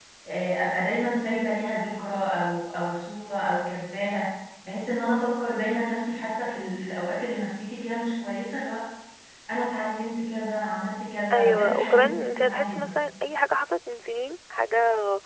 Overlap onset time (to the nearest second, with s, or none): 11 s